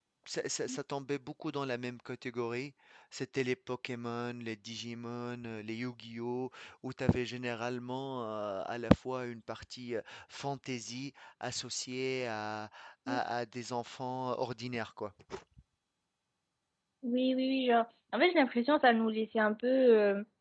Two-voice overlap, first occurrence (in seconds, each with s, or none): none